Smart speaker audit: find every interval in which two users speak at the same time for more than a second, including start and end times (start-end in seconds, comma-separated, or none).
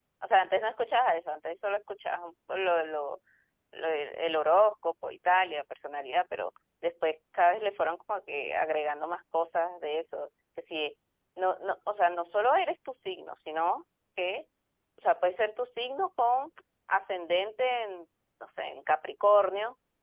none